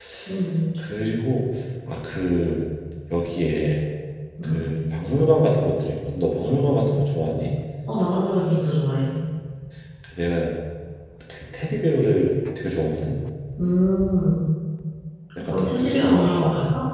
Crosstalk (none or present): present